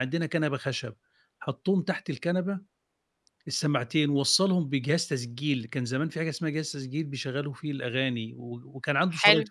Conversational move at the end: listening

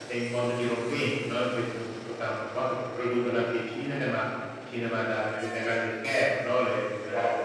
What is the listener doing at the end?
taking over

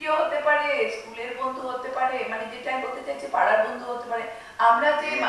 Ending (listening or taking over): listening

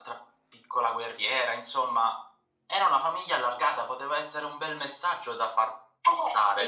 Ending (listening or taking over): taking over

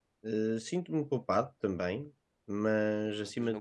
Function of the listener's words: taking over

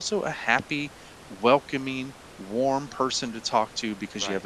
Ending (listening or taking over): listening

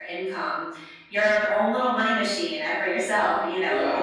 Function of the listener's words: listening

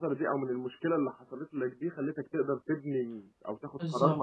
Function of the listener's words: listening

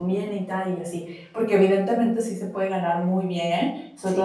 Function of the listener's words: listening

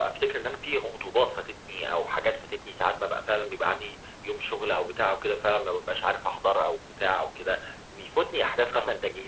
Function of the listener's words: listening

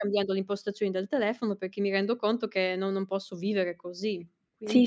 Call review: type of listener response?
taking over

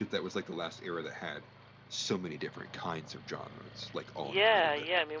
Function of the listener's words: taking over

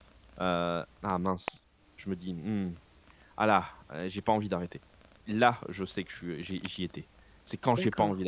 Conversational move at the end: listening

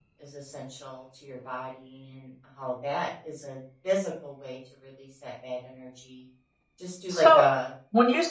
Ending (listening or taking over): taking over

